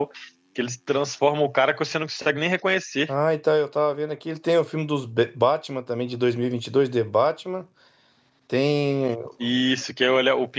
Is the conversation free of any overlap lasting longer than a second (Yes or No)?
Yes